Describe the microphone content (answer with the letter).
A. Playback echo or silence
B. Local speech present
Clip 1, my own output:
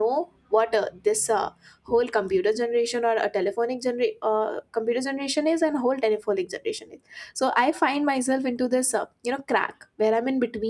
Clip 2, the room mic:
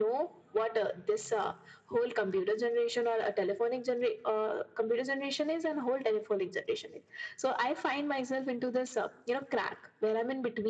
A